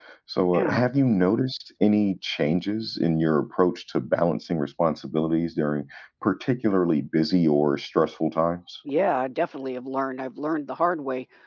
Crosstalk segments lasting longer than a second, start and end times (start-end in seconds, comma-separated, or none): none